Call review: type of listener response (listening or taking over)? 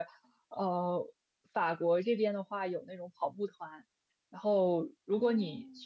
listening